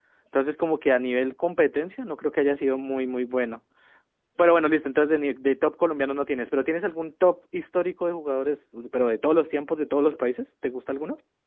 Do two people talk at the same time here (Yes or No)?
No